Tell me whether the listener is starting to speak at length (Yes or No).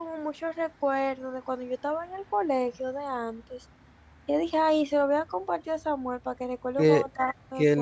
Yes